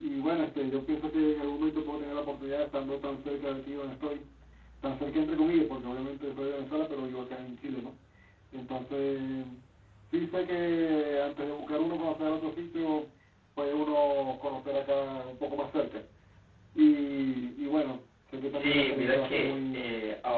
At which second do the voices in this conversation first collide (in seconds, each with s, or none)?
18.5 s